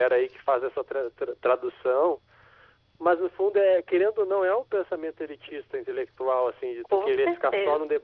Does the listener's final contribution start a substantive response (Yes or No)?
No